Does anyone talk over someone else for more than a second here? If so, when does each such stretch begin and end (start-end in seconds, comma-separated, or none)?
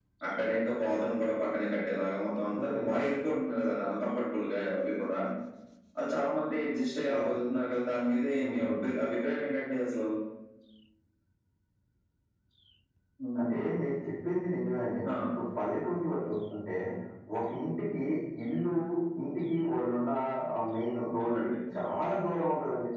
none